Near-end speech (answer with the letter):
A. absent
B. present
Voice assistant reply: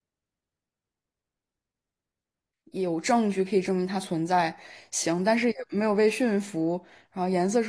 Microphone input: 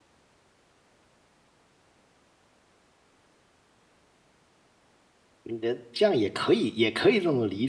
B